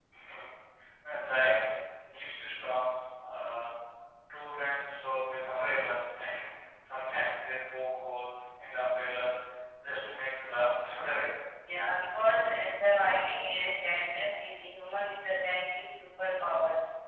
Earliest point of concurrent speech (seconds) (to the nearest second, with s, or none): none